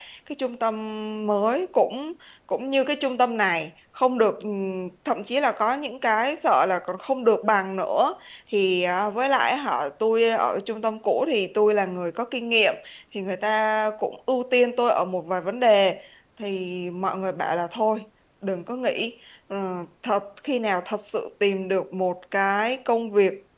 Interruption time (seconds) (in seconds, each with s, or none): none